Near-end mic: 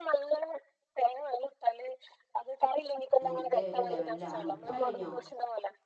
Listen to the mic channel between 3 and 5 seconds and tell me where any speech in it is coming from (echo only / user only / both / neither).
both